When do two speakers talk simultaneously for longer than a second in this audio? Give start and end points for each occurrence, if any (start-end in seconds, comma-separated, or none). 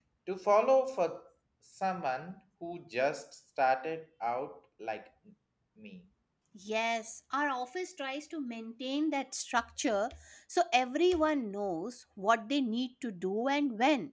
none